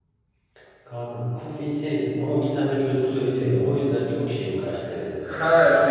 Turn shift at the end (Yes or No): Yes